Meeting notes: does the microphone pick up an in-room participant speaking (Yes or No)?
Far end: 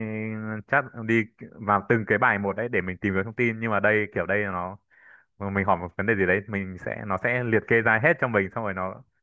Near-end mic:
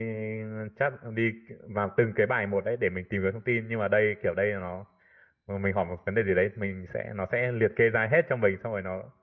No